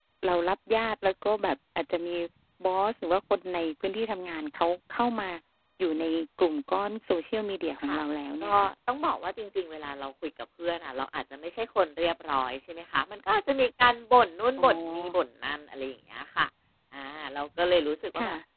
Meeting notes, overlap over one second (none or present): none